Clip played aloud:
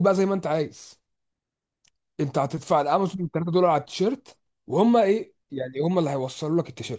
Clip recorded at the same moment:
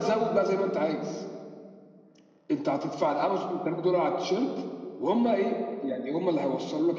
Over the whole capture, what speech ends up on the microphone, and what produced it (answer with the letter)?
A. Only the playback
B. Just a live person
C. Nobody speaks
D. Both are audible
A